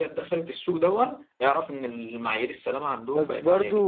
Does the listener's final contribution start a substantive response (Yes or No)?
Yes